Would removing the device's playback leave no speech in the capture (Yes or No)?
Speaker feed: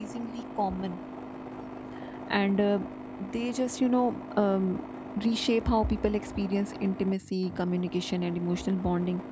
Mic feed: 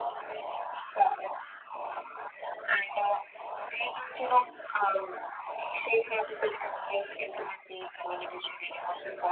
Yes